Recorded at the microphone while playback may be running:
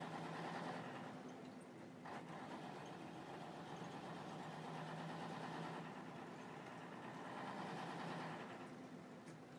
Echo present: No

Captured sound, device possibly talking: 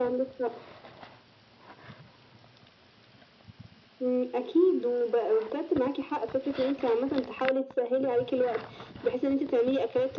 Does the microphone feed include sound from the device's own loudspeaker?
Yes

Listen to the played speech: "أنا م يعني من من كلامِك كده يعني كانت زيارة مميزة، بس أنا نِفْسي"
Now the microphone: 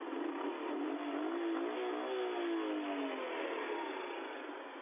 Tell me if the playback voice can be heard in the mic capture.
No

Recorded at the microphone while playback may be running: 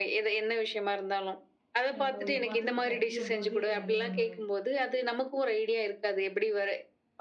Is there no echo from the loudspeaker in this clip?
No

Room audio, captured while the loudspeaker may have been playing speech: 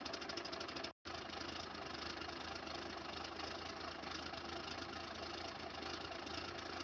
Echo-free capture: Yes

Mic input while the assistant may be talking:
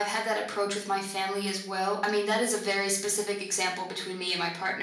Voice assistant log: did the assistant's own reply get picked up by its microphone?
Yes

